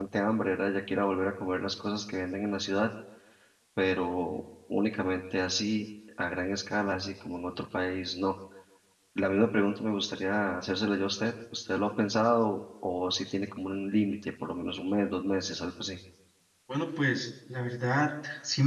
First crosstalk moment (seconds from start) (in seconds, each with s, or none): none